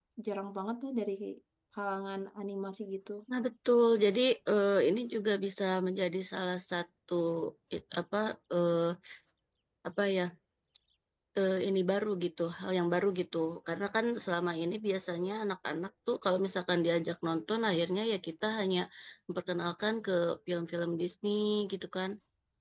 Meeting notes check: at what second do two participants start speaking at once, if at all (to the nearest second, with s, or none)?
none